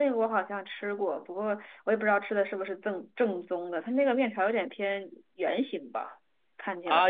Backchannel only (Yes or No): No